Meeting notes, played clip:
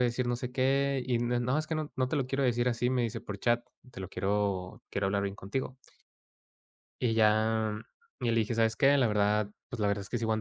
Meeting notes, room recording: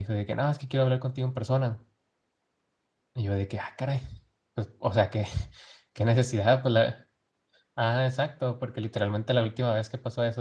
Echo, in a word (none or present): none